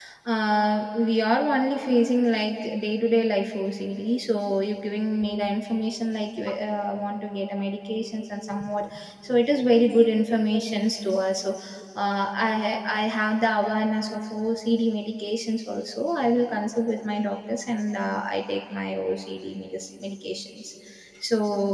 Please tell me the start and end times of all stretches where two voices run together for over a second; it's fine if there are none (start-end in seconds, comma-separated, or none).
none